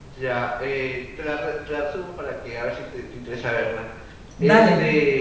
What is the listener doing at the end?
listening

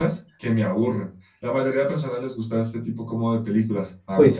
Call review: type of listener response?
taking over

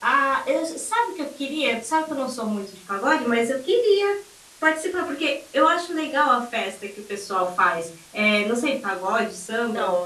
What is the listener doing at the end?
taking over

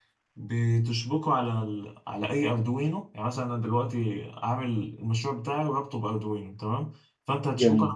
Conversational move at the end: listening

